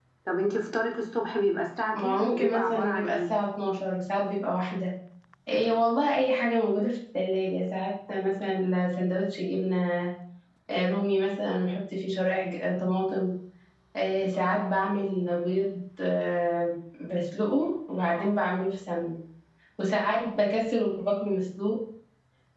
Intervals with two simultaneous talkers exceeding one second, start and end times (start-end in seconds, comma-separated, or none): 1.9-3.3